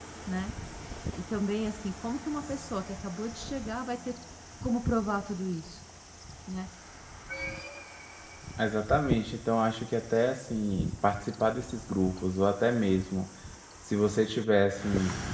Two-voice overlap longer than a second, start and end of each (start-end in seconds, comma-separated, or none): none